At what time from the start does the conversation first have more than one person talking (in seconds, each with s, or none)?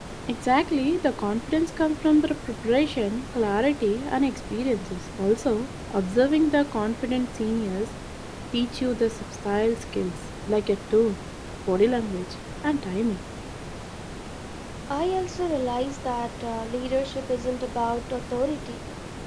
none